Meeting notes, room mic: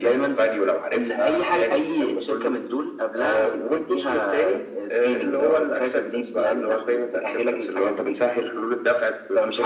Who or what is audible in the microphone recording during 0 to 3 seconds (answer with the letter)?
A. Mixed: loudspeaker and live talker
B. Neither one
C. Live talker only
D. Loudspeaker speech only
D